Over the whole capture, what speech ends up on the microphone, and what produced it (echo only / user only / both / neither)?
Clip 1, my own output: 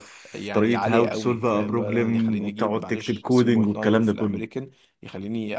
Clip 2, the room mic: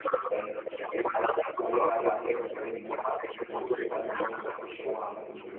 both